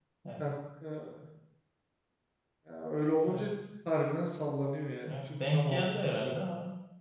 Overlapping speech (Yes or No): Yes